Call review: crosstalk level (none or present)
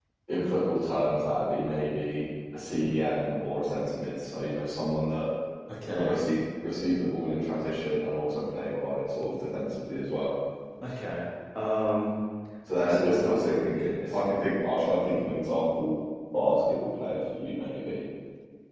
present